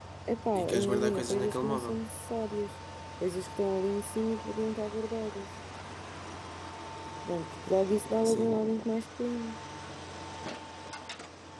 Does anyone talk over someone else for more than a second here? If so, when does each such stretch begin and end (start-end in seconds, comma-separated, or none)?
0.6-1.9